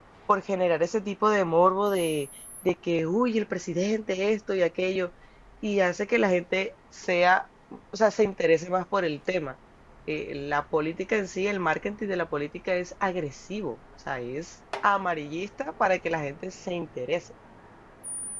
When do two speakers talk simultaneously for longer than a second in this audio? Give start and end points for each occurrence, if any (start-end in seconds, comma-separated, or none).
none